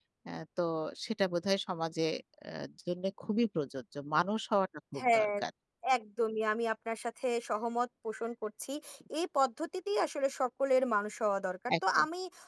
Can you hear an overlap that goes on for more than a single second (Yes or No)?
No